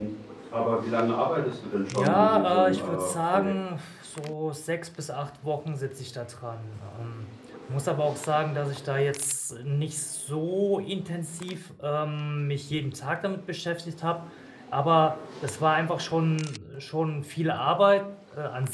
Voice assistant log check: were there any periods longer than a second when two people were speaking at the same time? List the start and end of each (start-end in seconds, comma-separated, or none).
1.9-3.5